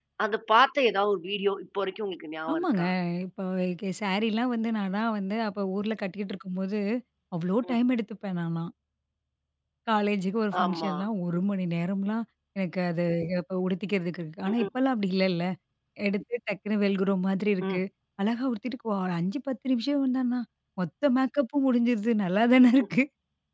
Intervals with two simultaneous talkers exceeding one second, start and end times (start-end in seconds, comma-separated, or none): none